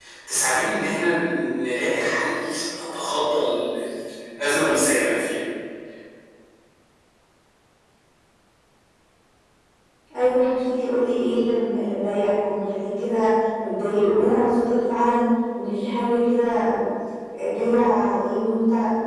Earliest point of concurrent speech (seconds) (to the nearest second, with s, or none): none